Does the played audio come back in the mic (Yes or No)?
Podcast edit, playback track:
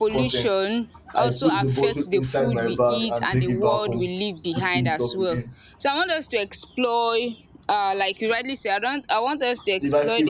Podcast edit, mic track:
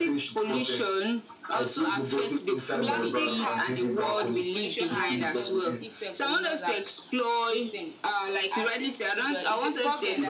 Yes